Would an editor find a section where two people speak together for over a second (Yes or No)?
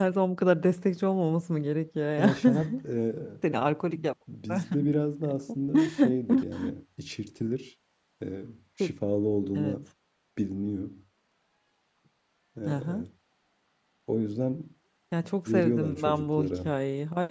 Yes